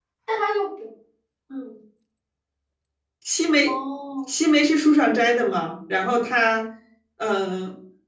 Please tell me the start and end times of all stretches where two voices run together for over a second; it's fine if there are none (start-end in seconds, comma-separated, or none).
none